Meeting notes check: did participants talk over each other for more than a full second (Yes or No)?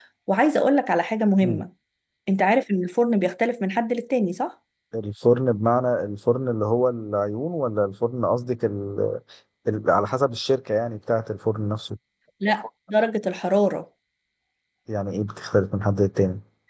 No